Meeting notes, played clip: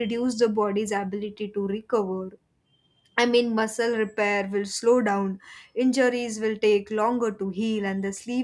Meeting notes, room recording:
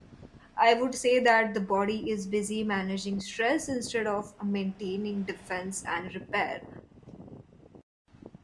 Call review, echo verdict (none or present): none